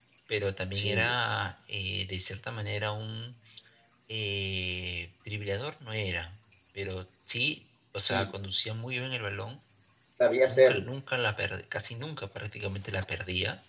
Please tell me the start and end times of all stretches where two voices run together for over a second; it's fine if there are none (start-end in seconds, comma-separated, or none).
none